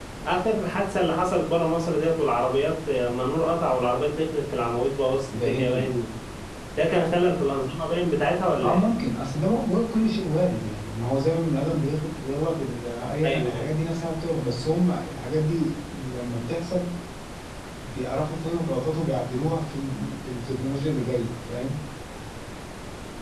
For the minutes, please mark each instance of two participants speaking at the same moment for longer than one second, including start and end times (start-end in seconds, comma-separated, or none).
none